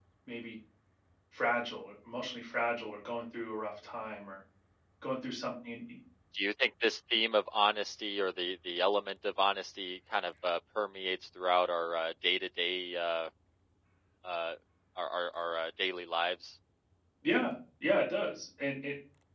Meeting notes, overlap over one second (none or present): none